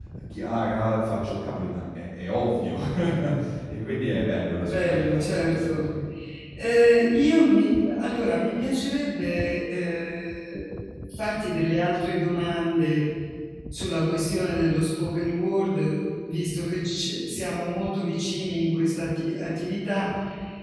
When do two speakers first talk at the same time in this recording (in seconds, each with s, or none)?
4.6 s